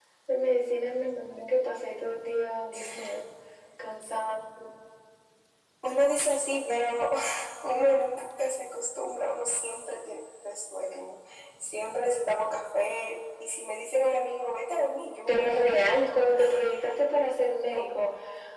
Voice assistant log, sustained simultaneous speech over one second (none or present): none